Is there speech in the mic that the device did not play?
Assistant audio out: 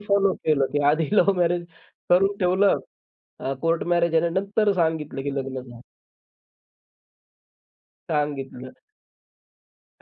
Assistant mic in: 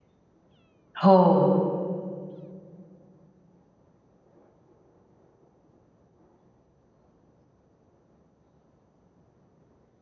Yes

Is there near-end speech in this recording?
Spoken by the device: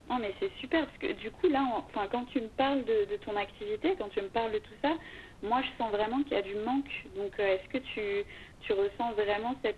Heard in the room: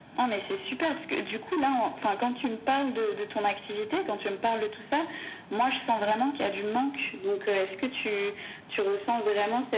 No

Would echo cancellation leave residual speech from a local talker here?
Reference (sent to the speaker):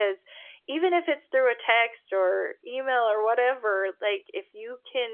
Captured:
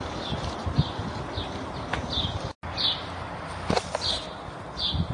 No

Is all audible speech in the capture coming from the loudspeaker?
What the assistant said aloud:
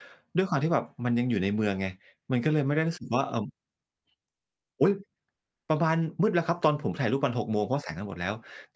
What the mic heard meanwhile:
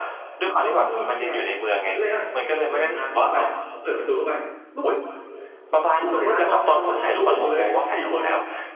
No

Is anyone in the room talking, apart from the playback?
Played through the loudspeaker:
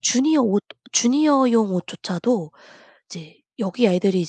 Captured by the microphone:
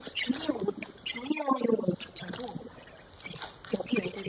No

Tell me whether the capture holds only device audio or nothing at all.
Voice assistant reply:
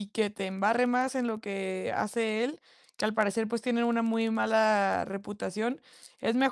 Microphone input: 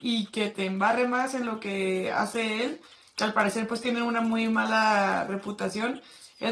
Yes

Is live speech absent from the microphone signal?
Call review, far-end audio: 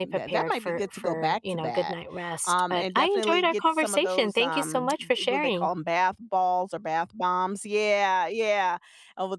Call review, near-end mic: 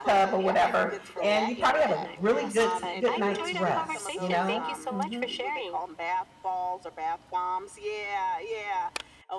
No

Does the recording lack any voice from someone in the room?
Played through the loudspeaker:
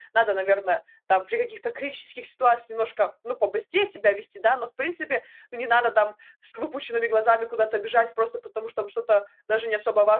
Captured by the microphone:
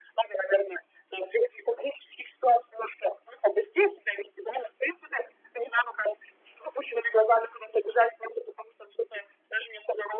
Yes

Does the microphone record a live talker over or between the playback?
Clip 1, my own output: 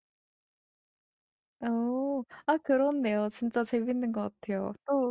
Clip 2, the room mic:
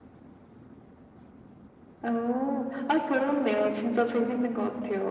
No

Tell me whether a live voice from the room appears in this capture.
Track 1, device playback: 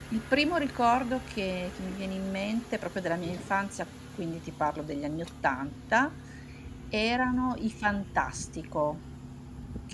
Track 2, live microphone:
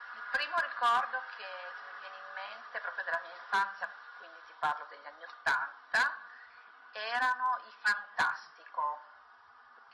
No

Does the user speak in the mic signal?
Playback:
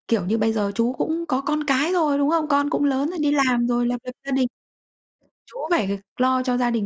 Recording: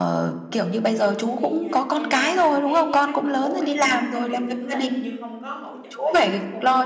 Yes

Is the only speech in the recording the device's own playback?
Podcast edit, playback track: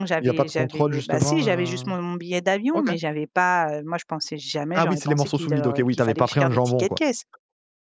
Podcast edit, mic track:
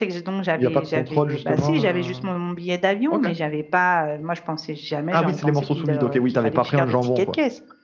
Yes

